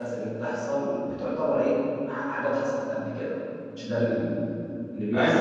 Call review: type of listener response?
taking over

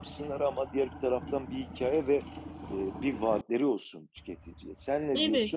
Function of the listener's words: taking over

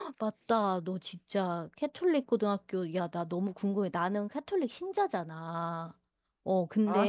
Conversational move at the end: listening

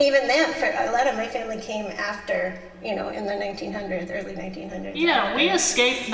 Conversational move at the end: taking over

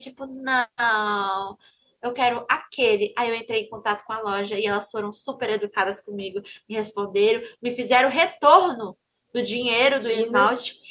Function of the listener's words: listening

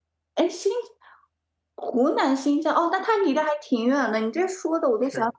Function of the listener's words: listening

